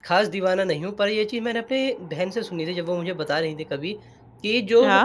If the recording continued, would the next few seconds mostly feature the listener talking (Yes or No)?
No